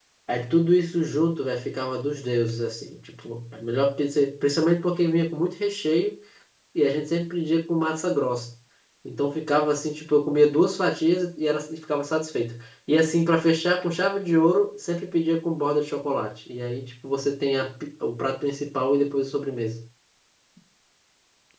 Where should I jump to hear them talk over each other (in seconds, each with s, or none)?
none